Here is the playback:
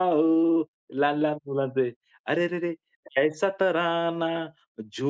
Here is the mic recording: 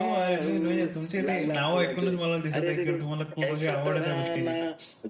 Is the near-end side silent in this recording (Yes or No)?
No